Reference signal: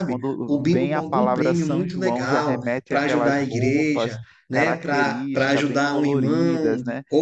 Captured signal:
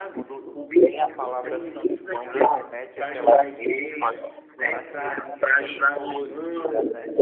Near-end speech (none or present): none